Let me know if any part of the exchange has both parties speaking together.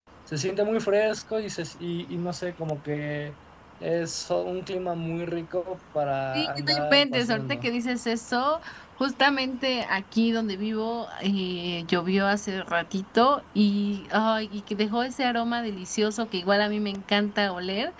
Yes, from 6.3 s

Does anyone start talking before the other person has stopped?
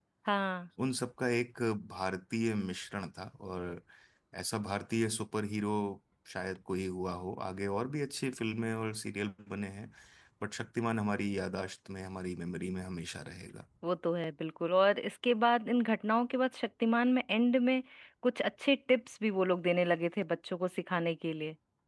No

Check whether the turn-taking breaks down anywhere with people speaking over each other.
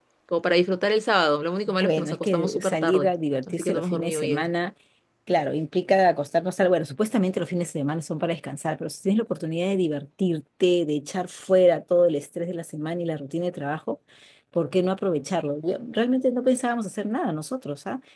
Yes, from 1.8 s

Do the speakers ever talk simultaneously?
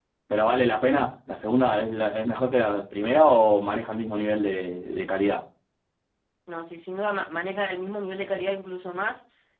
No

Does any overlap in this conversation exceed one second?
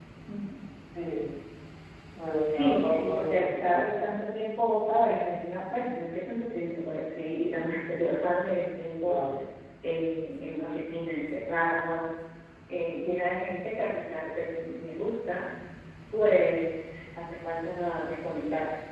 Yes, from 2.5 s

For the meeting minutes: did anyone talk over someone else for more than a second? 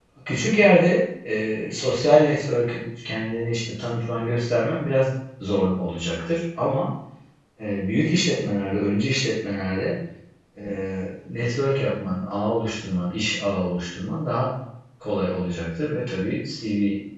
No

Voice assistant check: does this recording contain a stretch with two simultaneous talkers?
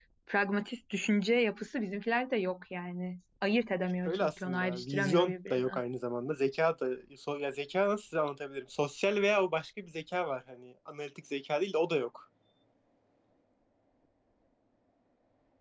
Yes, from 4.0 s

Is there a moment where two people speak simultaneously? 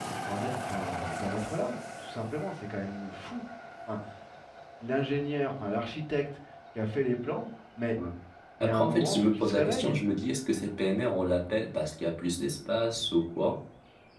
Yes, from 8.6 s

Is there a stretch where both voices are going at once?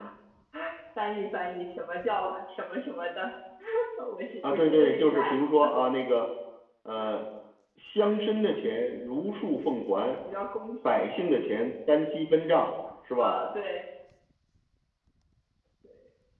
Yes, from 4.5 s

